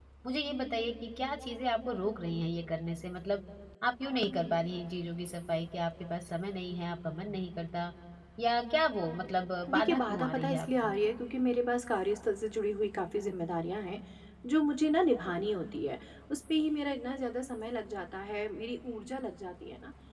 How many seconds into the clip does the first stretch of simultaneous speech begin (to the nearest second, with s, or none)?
10 s